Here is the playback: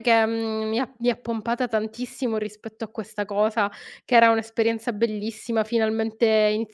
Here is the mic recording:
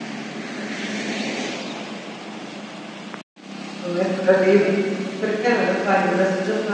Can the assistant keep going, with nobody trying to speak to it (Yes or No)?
No